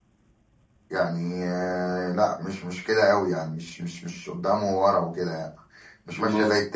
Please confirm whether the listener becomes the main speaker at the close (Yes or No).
No